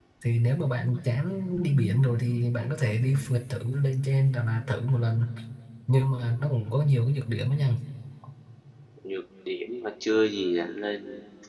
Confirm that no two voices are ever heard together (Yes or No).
Yes